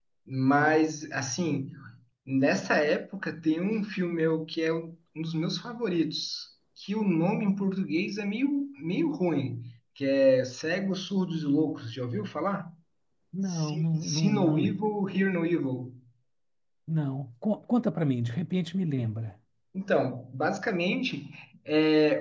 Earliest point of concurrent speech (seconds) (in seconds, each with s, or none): 13.5 s